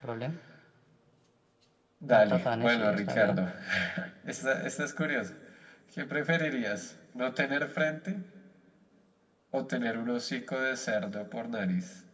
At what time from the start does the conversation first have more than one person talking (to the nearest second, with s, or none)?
2 s